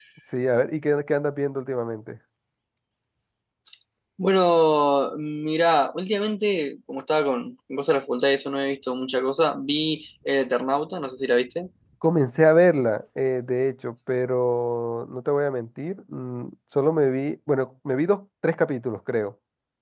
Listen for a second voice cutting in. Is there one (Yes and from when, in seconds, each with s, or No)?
No